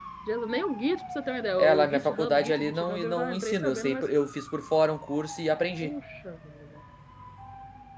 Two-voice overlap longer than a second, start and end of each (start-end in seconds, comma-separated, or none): 1.6-4.1